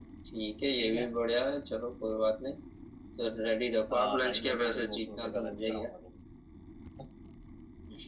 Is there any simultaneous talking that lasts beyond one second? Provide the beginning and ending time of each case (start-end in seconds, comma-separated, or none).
3.9-5.9